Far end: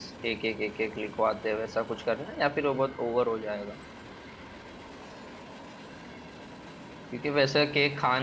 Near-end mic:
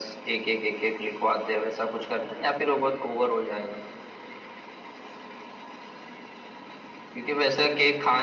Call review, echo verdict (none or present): present